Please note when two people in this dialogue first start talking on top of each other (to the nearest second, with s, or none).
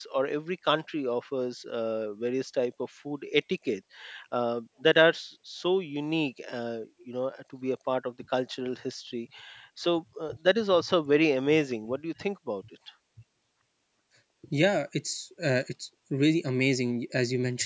none